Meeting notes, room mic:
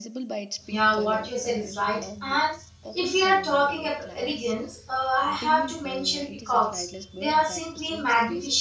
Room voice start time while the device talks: 0.7 s

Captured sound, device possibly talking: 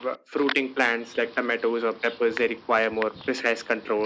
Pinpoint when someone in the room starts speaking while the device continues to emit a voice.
none

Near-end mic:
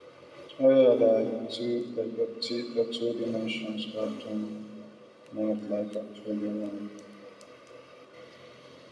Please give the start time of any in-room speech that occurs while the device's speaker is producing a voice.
none

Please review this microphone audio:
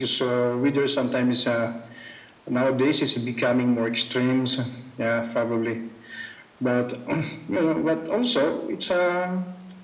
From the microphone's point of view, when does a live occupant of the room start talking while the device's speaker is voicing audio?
none

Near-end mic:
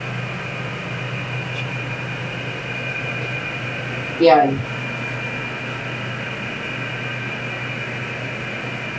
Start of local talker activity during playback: 4.2 s

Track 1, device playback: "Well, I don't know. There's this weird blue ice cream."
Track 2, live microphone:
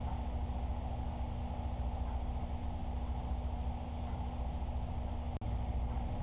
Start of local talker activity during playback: none

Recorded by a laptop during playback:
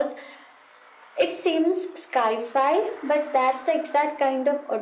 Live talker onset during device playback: none

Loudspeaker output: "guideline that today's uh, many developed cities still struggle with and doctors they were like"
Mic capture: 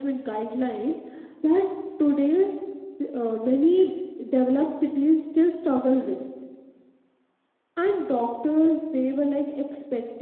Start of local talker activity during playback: none

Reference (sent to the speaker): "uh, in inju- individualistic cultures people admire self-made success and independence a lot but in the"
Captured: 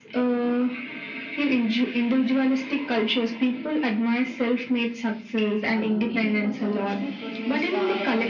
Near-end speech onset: 5.7 s

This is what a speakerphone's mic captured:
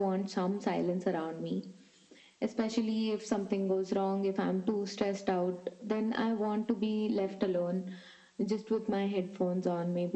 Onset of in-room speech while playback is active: none

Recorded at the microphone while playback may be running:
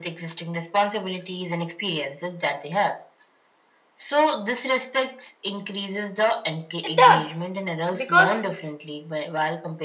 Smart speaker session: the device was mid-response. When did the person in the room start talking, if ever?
6.8 s

